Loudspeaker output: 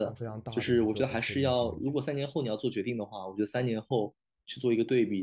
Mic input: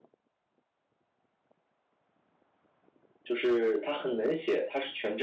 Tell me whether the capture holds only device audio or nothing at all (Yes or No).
No